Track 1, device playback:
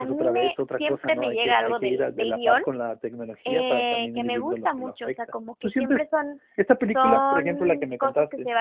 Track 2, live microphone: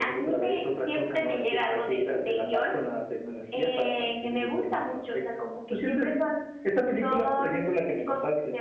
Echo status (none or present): present